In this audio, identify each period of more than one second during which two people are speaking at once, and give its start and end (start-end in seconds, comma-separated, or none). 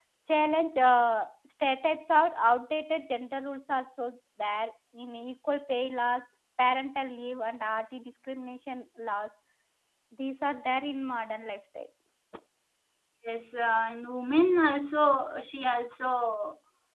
none